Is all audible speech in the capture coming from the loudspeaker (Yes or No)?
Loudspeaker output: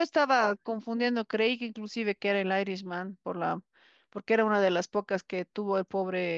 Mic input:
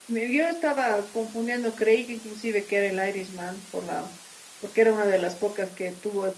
Yes